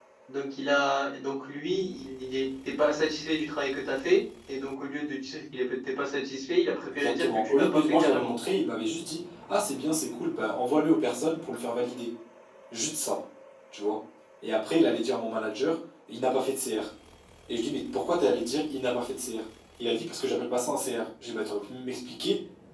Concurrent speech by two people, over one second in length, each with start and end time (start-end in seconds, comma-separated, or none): 6.9-8.3